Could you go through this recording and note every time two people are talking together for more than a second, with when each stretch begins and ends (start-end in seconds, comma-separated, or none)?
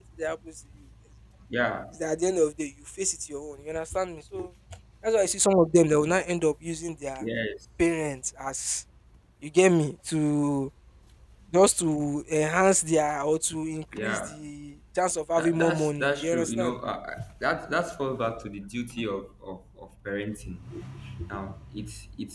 15.4-16.8